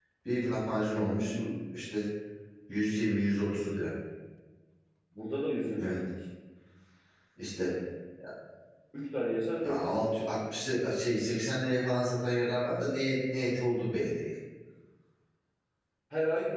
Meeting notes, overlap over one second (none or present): none